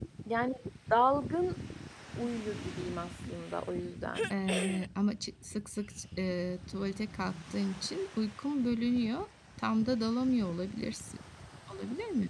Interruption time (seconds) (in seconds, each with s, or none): none